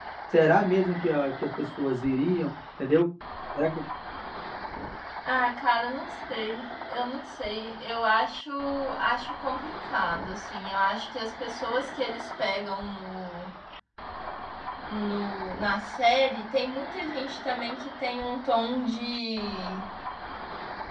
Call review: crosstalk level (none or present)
none